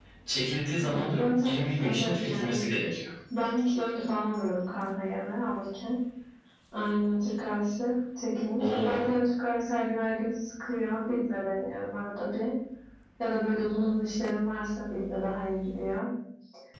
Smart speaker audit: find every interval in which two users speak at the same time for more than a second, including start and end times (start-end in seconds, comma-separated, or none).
0.8-2.6